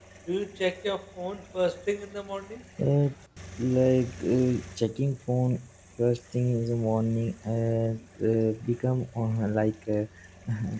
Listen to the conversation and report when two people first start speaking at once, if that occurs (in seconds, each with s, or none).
none